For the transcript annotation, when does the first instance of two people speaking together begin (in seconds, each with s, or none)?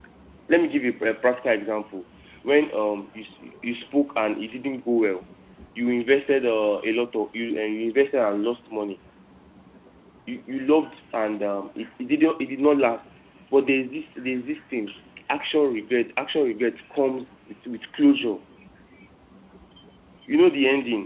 none